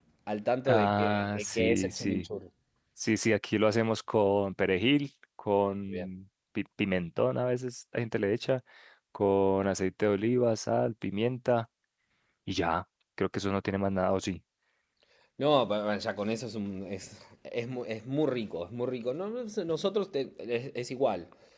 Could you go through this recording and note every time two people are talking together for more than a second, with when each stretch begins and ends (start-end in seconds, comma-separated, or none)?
0.7-2.2